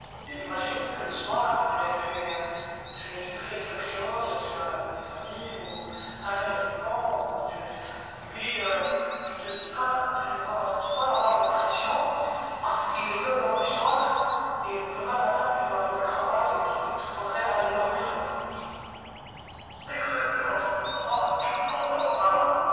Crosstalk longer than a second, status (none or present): none